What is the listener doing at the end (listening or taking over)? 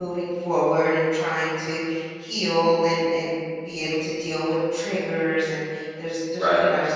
listening